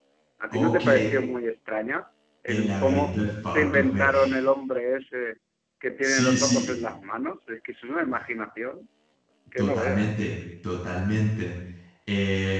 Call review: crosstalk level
present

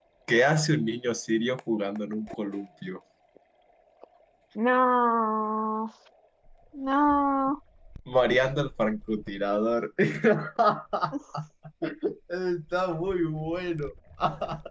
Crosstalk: none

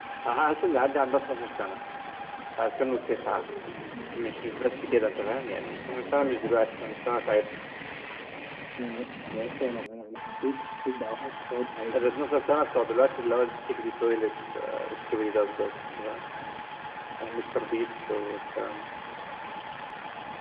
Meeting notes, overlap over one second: none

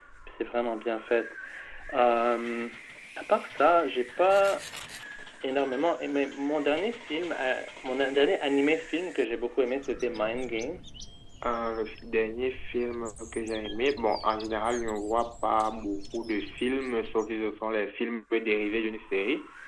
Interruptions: none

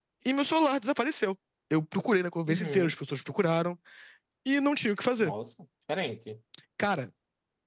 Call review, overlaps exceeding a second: none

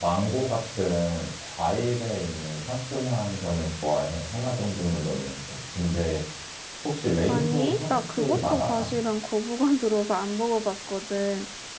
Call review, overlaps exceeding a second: present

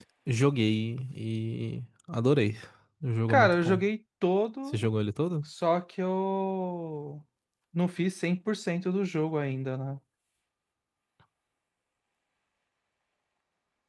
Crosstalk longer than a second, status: none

